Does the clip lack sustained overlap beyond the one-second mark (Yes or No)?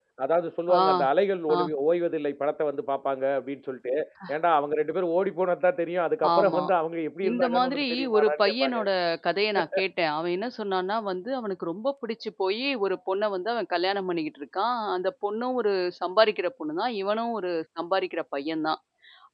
No